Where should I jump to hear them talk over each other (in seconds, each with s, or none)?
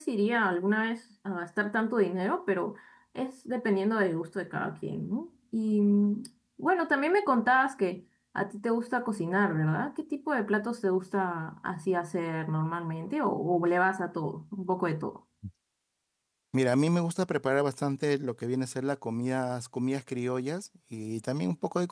none